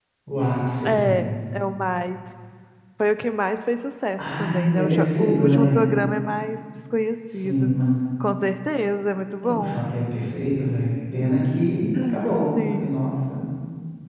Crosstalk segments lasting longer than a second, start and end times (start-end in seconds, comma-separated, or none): 4.2-5.8